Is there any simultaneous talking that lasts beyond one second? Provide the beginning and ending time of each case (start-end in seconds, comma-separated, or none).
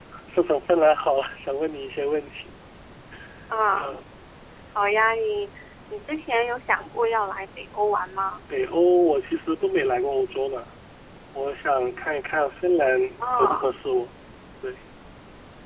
none